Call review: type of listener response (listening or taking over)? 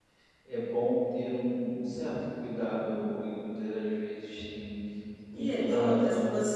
taking over